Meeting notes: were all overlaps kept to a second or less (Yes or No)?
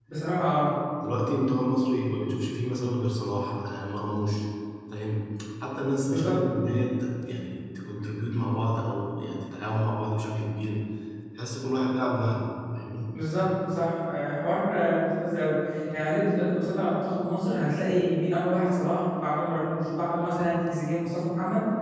Yes